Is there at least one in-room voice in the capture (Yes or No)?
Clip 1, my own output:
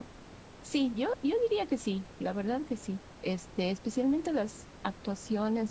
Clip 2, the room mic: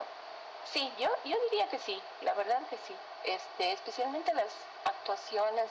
No